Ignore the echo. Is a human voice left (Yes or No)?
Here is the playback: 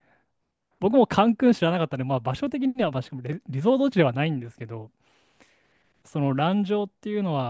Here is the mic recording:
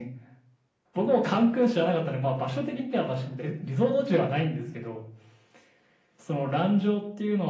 No